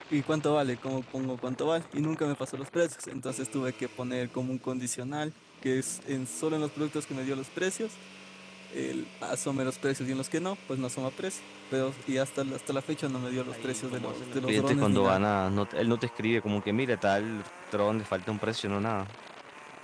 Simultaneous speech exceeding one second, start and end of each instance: 13.5-15.2

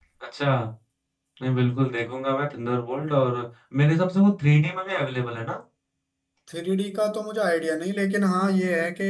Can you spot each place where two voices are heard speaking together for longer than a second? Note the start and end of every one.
none

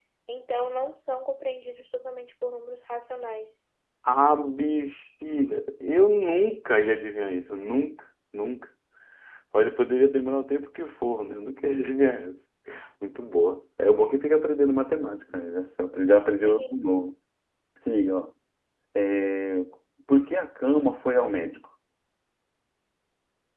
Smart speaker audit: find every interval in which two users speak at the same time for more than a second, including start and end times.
none

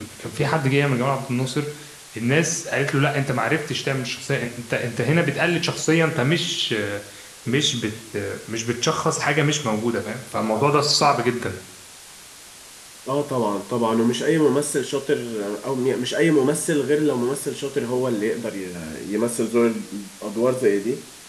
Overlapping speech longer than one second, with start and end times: none

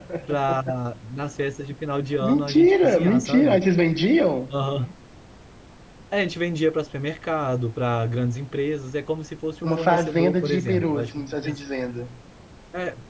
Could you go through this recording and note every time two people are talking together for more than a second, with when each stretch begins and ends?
2.2-3.6, 9.6-11.6

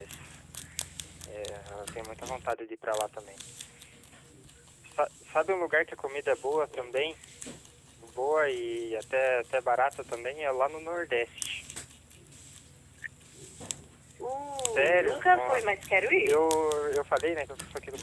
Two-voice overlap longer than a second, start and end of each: 14.5-15.8

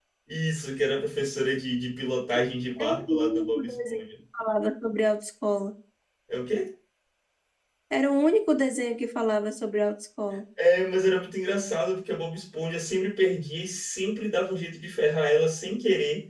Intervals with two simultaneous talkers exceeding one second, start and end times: 2.8-4.0

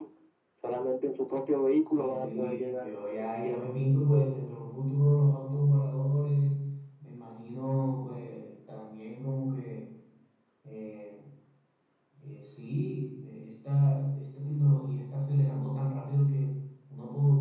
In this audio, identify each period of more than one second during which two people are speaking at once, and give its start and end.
1.9-3.7

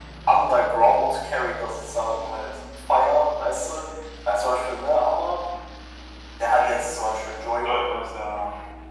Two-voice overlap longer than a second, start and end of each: none

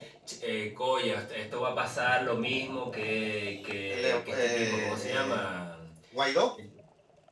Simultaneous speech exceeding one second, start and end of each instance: 3.9-5.4

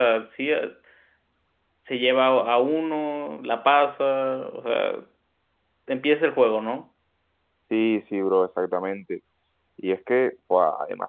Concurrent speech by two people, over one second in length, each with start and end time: none

